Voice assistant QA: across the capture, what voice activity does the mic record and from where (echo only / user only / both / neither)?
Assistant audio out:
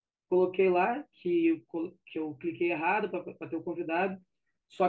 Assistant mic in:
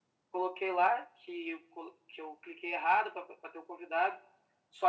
echo only